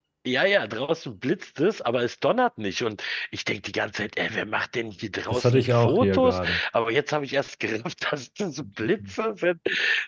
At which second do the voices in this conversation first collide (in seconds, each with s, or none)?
5.3 s